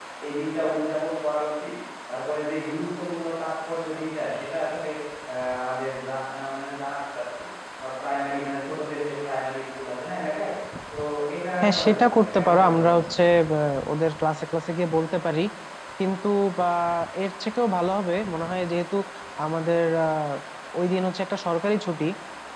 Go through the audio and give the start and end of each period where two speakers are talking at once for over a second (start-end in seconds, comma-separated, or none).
11.6-13.0